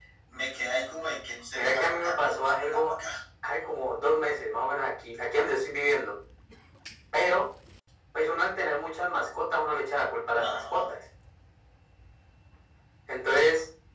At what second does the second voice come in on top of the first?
1.5 s

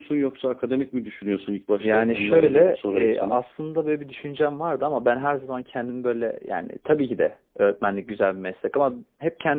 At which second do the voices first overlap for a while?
1.8 s

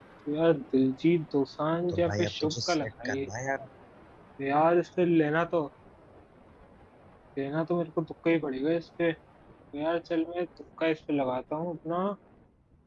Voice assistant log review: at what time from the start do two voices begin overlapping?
1.9 s

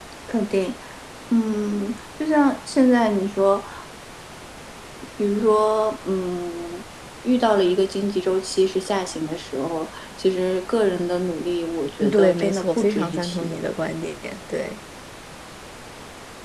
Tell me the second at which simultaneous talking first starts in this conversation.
12.0 s

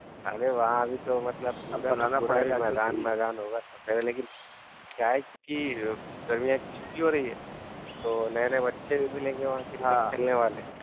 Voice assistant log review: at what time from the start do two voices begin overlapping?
1.7 s

